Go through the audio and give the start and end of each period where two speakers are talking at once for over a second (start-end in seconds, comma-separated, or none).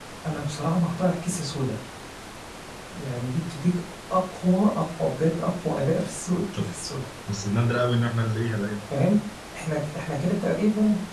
none